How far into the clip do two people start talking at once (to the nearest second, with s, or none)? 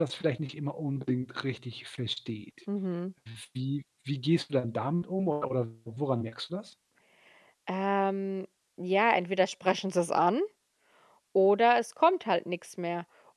none